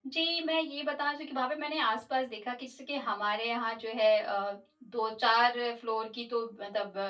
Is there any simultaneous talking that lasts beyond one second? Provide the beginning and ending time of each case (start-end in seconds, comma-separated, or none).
none